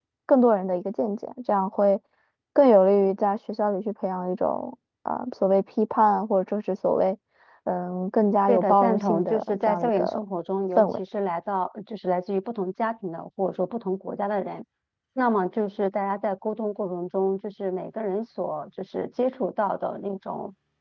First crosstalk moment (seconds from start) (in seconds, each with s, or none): 8.5 s